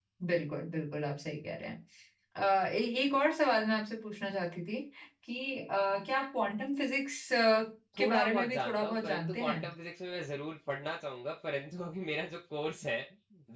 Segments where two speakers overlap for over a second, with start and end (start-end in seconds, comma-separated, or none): 8.0-9.6